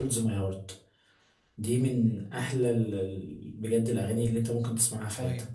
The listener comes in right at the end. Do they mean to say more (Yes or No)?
Yes